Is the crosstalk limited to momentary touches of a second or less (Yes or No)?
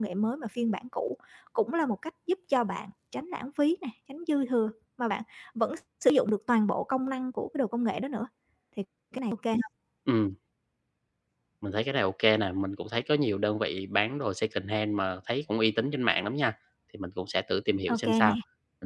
Yes